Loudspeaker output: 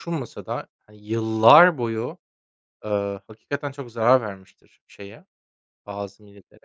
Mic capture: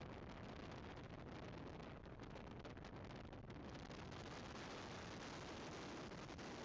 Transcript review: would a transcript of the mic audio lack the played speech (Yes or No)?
Yes